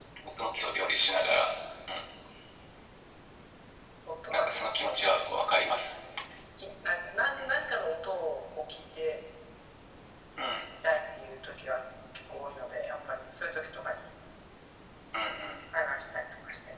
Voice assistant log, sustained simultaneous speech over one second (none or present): present